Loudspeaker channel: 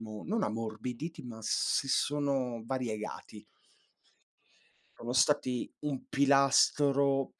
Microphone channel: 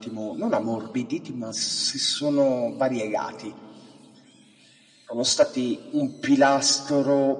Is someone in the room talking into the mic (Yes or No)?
No